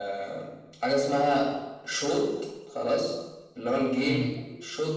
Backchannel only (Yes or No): Yes